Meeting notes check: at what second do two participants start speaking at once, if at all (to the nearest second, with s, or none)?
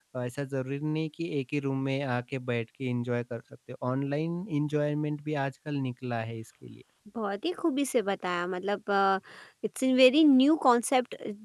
none